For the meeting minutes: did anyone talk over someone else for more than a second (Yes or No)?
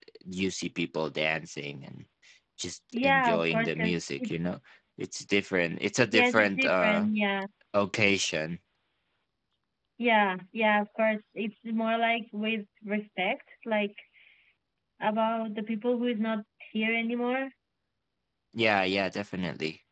Yes